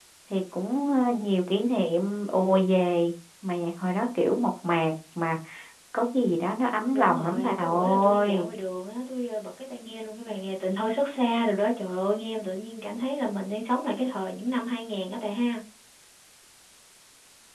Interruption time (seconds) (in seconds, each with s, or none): 6.9 s